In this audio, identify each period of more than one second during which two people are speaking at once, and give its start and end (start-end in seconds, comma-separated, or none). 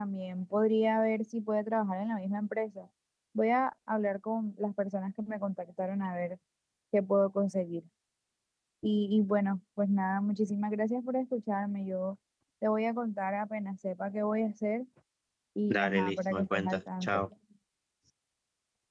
15.7-17.2